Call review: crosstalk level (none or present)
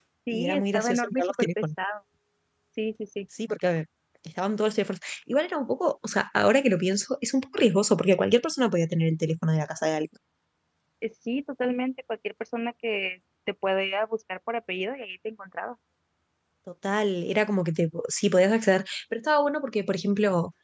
present